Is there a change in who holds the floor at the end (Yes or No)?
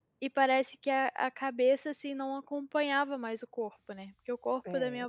No